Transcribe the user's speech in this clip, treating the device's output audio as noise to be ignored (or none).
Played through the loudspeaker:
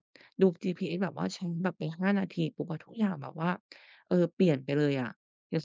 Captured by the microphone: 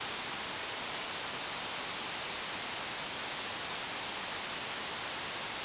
none